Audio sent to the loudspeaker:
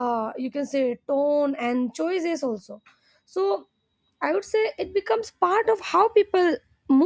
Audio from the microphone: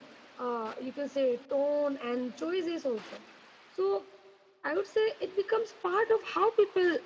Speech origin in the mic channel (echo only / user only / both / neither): echo only